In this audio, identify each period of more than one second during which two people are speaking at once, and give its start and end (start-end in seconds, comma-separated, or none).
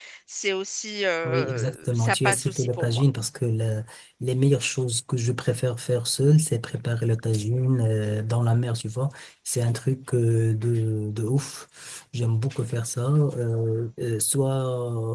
1.2-3.0